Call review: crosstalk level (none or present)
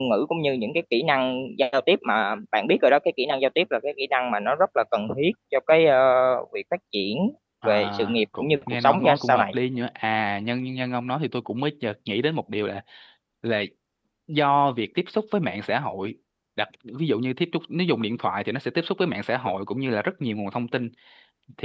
present